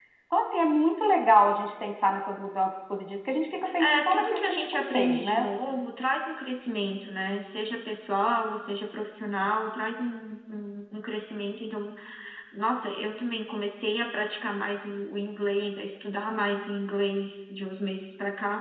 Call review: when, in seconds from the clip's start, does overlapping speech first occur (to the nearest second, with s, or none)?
4 s